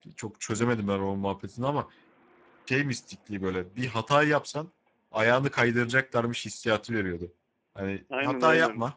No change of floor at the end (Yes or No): Yes